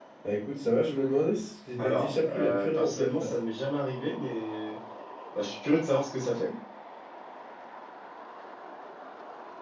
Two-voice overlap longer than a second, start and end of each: 1.8-3.3

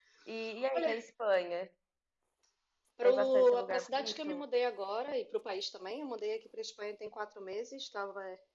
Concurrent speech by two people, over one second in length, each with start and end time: 3.0-4.4

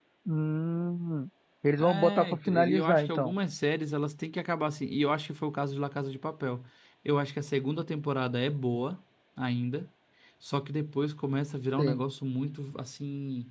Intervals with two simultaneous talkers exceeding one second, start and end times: 1.8-3.3

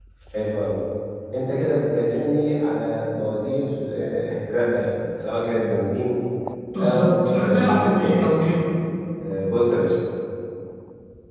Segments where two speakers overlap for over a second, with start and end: 6.8-8.3

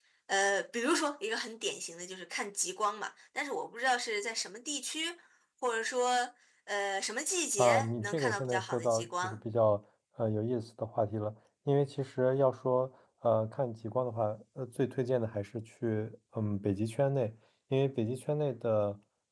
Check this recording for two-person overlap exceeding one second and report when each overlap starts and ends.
7.6-9.4

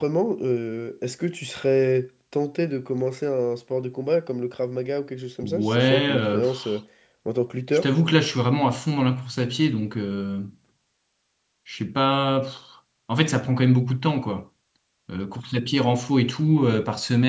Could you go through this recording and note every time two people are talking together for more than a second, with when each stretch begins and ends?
5.4-6.8

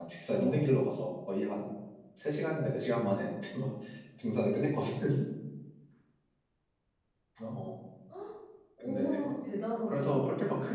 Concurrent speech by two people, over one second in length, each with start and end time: none

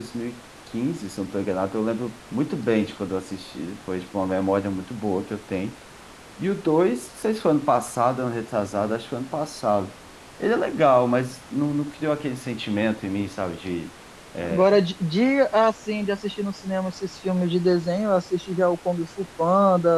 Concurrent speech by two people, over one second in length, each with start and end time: none

